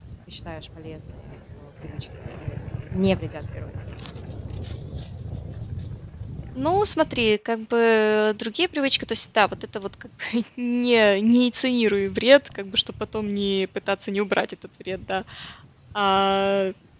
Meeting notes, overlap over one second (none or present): none